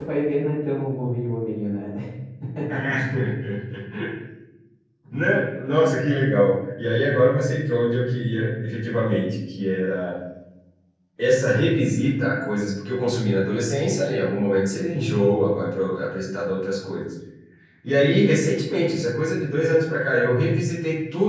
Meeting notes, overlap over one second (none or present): none